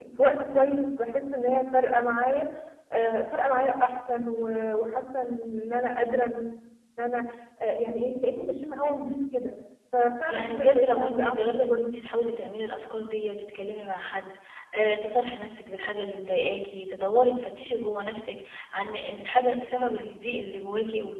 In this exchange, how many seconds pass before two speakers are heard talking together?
10.2 s

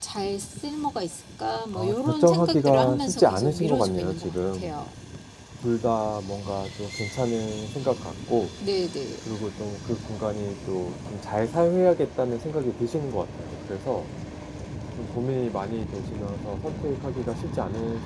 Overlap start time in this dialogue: 1.7 s

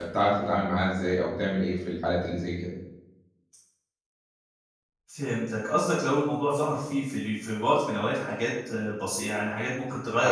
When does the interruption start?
none

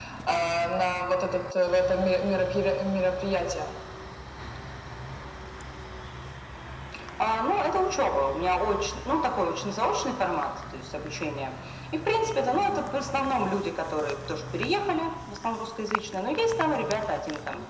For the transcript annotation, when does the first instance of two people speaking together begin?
none

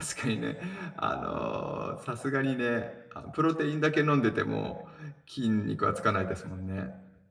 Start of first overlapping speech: none

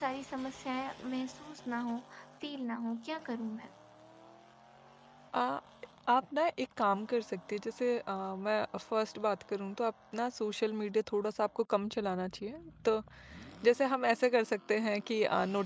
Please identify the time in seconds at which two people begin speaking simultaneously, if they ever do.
none

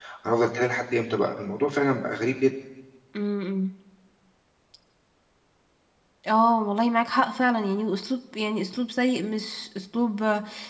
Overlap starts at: none

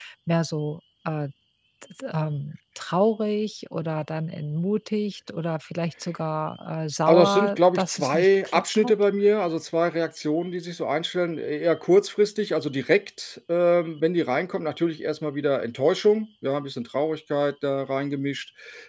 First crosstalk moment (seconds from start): 7.1 s

